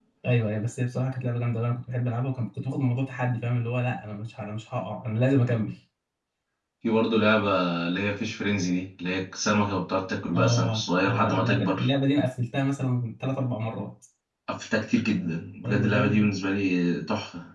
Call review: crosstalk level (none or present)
present